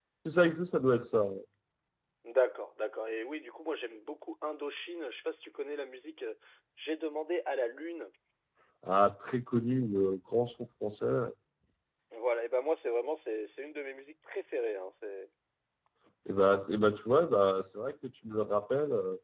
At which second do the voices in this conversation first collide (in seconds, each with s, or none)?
none